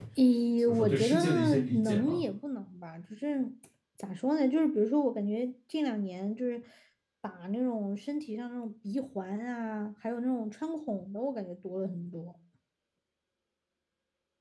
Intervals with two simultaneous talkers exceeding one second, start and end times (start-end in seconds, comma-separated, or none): 0.7-2.2